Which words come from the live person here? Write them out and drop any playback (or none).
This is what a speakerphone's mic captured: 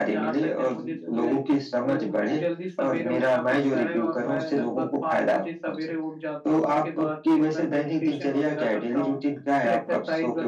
none